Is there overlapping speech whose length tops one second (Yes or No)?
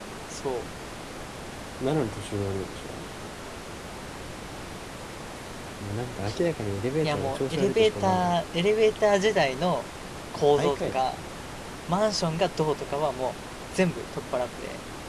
Yes